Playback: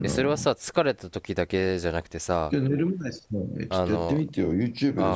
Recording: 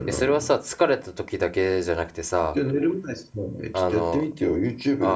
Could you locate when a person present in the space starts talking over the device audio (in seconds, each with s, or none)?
none